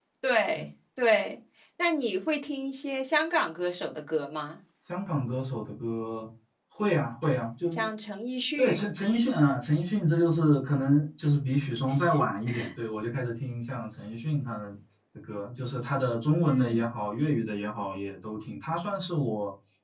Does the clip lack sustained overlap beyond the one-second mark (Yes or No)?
Yes